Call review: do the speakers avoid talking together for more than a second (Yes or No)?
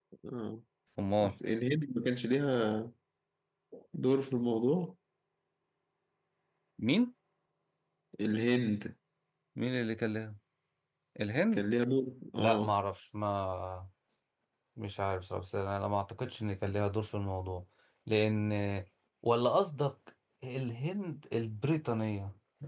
Yes